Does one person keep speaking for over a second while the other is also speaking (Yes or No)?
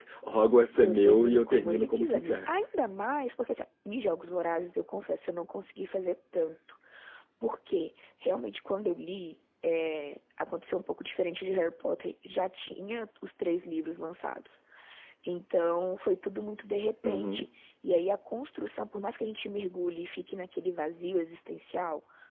Yes